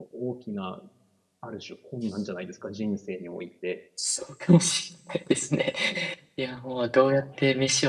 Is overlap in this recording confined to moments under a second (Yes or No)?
Yes